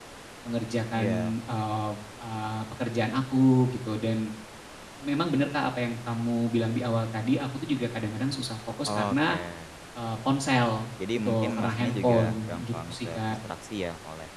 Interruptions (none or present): present